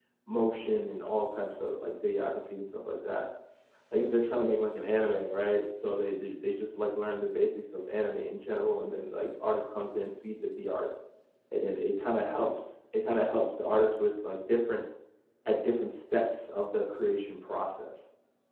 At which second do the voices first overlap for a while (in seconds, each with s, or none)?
none